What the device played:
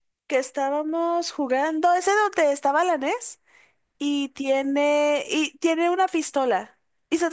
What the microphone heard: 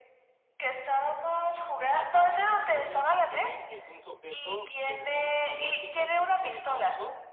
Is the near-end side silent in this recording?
No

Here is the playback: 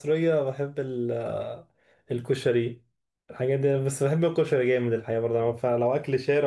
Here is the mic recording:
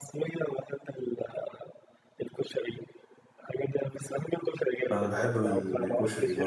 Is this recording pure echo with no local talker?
No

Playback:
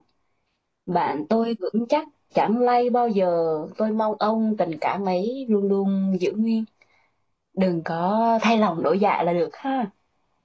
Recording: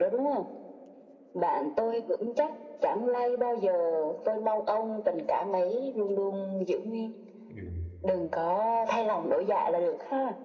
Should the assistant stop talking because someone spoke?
Yes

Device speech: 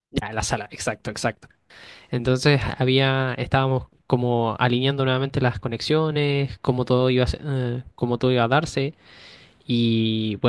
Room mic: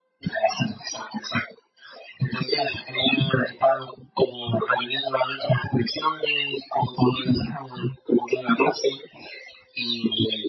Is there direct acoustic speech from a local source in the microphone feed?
No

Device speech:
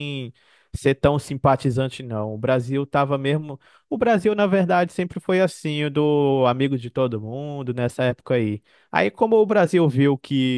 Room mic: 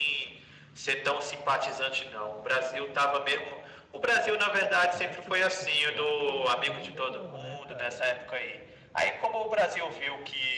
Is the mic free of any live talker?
No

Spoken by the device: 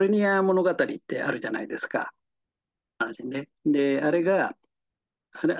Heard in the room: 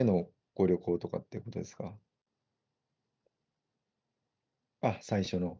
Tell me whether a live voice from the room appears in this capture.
Yes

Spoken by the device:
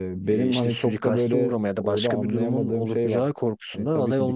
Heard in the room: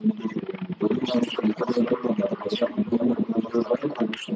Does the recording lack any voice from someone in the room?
Yes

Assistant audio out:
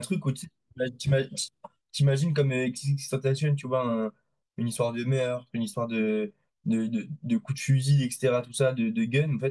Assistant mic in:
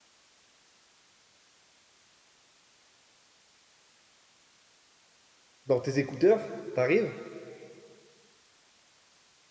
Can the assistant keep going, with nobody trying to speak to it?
No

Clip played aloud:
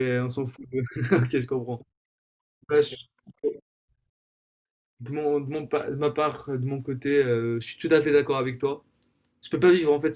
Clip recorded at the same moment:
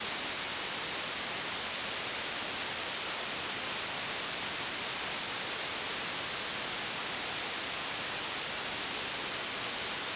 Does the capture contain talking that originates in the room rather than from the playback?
No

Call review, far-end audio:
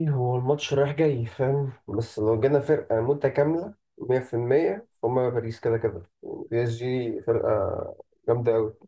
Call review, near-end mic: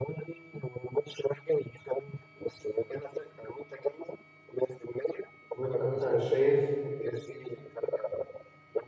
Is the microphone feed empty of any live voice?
No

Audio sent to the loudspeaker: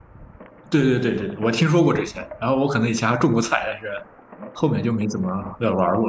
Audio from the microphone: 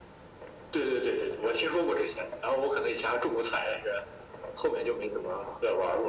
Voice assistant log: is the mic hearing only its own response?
Yes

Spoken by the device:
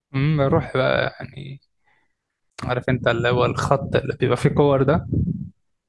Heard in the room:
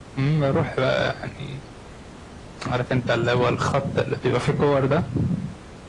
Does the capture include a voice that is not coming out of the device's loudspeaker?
No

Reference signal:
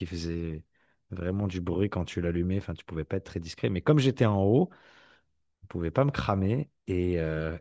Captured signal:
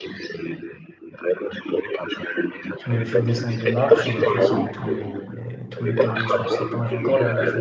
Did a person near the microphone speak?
Yes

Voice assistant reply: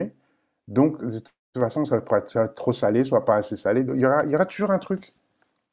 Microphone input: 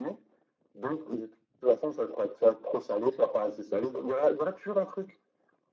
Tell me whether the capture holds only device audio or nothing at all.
Yes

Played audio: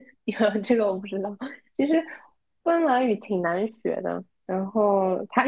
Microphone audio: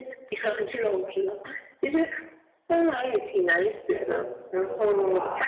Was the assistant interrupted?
Yes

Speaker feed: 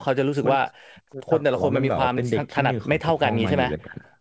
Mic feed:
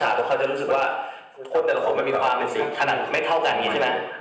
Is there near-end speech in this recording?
No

